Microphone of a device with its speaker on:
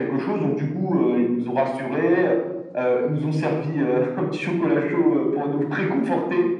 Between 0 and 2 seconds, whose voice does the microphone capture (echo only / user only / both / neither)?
echo only